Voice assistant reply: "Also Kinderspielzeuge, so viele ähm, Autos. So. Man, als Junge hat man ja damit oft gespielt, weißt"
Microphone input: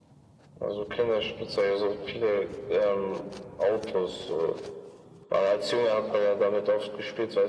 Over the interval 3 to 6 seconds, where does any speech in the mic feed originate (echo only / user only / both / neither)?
echo only